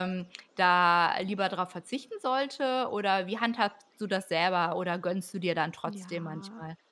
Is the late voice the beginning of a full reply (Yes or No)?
Yes